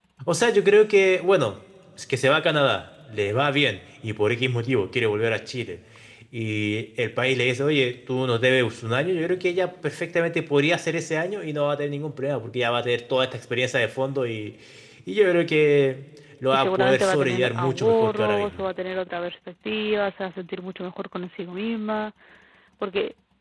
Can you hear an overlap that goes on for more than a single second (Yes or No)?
Yes